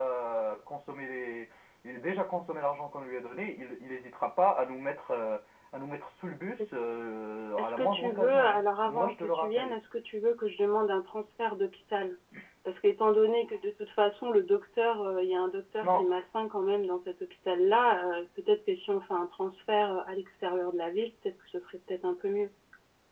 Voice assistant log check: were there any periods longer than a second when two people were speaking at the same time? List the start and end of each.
7.6-9.8

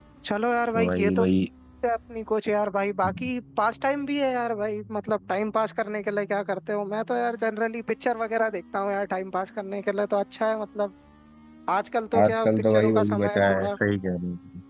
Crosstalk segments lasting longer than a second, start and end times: 12.2-13.7

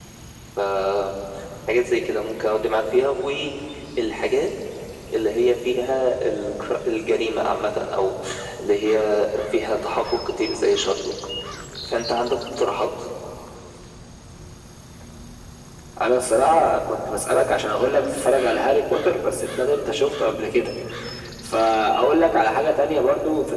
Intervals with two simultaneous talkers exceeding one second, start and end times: none

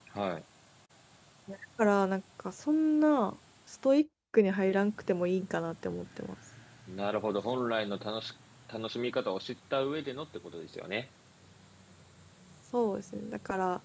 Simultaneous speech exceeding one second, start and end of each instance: none

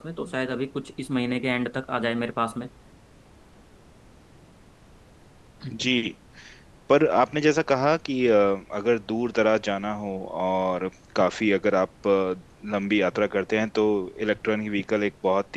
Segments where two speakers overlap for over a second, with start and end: none

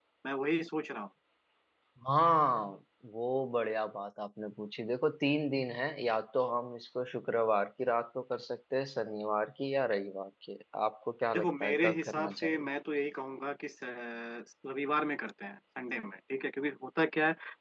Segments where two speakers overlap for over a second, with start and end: 11.3-12.7

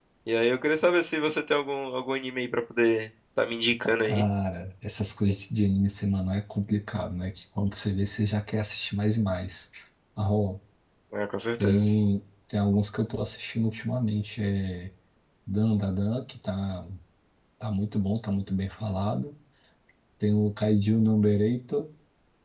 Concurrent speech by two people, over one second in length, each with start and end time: none

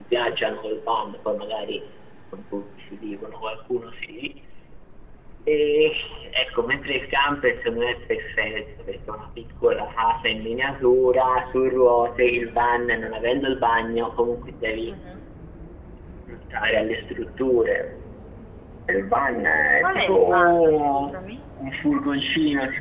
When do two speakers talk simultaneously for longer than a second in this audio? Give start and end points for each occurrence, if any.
19.8-21.1

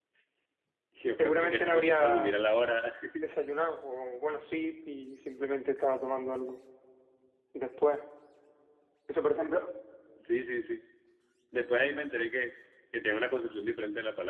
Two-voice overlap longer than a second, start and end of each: 1.2-2.4

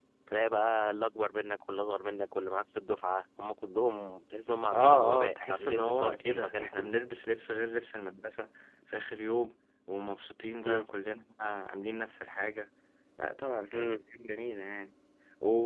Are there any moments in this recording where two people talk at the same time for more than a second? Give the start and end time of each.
4.7-7.0

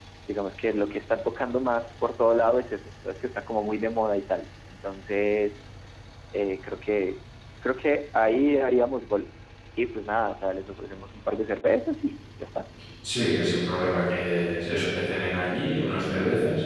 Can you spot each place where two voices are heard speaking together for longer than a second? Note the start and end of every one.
none

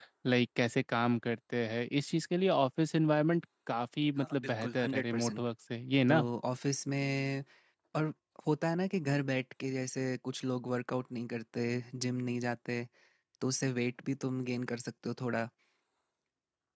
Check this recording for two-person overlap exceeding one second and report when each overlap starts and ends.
4.2-5.4

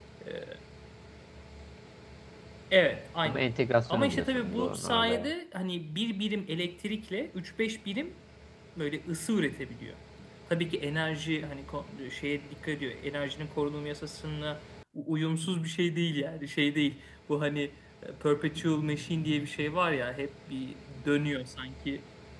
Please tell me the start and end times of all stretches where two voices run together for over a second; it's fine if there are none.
3.9-5.3

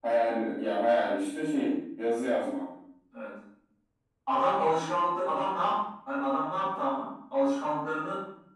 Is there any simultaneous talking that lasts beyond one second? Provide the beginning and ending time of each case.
none

